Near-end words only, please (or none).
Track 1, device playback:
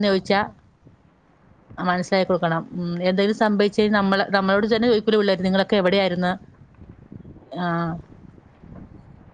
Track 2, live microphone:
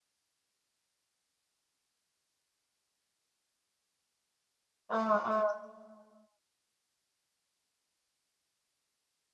ആഹ് ആഹ്